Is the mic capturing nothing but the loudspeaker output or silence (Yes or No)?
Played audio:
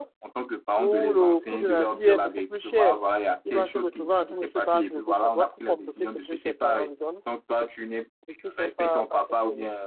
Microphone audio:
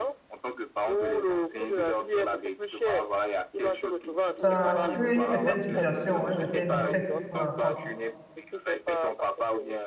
No